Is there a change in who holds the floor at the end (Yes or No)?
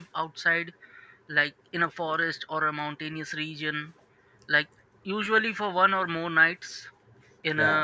No